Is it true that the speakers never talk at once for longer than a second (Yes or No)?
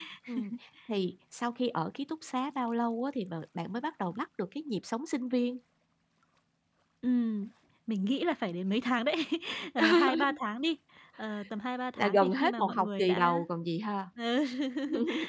No